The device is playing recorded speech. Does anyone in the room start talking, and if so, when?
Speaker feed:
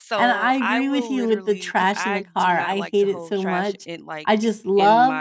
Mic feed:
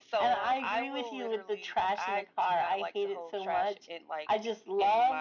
none

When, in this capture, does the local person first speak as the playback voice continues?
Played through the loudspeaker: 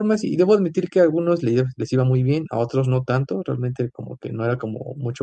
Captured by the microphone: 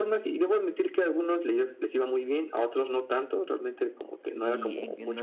4.3 s

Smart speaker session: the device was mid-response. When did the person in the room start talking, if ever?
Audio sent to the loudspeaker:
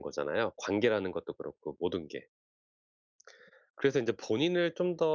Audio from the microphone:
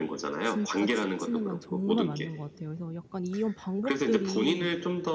0.4 s

